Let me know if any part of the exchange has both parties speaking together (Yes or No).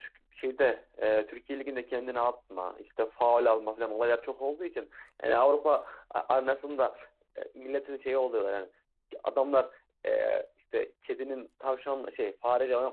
No